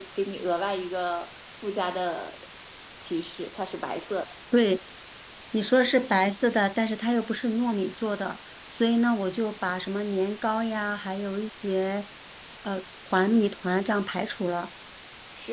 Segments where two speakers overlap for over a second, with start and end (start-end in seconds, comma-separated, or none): none